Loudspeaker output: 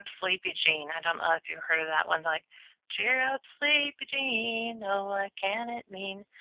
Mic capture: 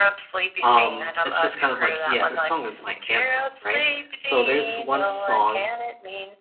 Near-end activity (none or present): present